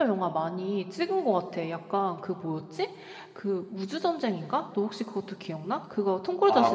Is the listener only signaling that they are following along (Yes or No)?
No